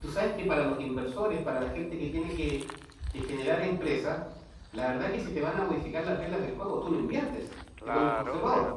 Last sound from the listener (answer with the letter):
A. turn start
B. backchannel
A